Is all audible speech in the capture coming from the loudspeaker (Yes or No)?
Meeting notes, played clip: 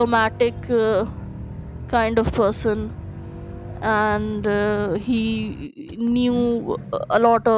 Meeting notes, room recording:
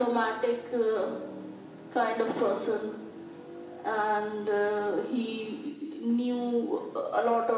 Yes